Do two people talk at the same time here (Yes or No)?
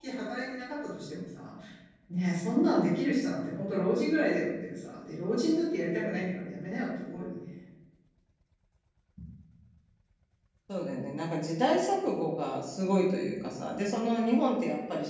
No